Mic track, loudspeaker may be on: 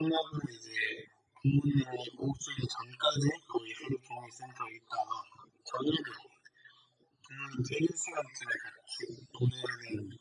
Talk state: echo only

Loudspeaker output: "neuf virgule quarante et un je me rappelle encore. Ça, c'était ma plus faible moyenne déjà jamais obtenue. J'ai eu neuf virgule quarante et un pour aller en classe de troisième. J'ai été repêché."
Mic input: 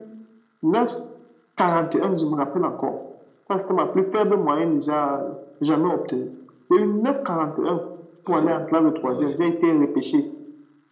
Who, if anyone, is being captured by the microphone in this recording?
both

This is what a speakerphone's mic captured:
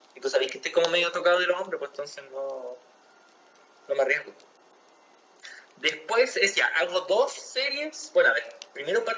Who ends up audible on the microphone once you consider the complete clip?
echo only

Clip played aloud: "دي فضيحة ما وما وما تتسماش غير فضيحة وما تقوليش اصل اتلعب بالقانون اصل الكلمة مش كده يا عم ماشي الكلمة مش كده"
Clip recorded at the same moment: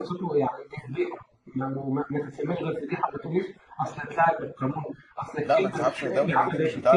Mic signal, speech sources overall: both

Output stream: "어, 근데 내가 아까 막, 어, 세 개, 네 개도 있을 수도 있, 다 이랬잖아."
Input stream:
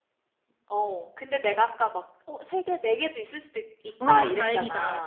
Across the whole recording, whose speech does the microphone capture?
both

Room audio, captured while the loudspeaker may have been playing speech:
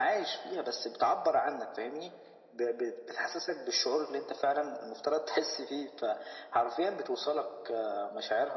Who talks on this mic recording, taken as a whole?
echo only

